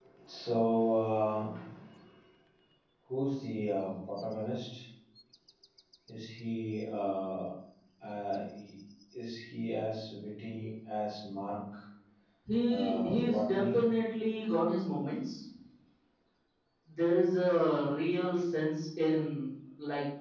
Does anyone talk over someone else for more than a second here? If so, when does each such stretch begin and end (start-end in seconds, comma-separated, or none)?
12.7-13.9